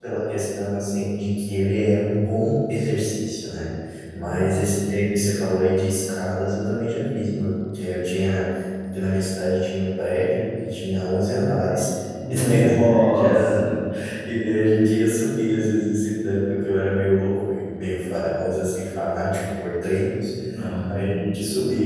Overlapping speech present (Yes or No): Yes